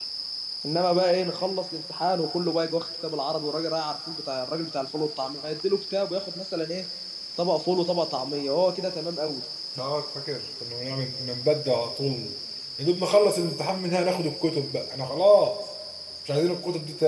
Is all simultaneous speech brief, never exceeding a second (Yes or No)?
Yes